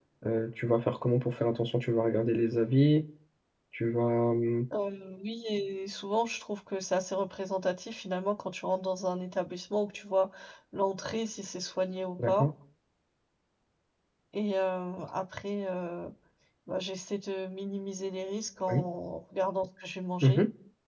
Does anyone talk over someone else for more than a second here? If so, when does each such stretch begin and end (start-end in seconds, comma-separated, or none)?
none